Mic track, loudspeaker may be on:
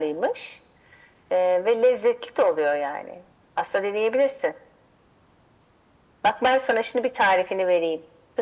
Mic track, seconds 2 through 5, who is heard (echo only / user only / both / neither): echo only